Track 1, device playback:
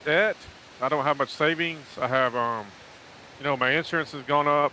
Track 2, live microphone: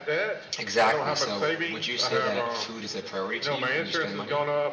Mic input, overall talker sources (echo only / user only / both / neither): both